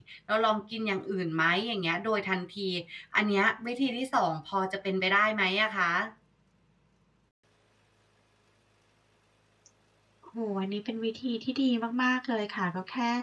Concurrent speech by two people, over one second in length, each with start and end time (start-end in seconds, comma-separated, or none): none